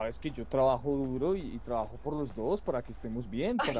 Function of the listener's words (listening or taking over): taking over